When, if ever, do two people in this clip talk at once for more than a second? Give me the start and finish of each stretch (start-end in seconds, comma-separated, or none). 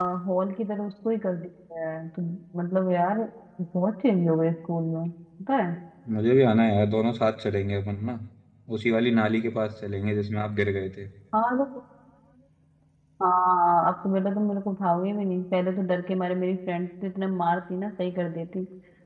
none